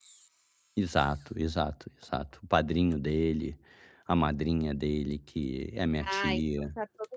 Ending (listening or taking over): taking over